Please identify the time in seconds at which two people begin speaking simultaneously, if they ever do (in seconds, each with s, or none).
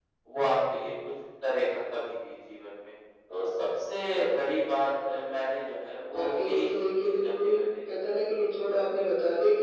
6.1 s